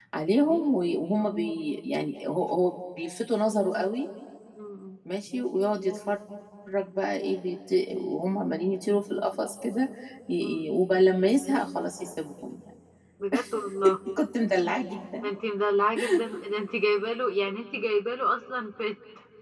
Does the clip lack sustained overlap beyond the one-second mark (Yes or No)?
Yes